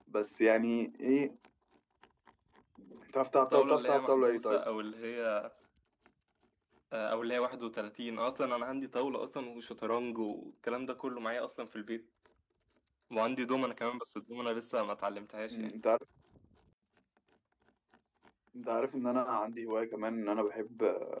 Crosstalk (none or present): present